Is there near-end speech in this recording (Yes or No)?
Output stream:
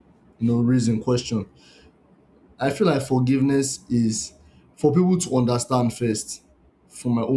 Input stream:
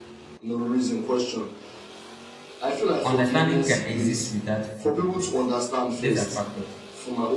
Yes